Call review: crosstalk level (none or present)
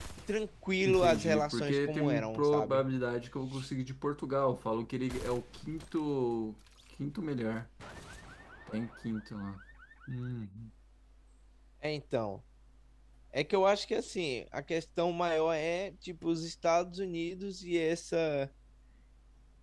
present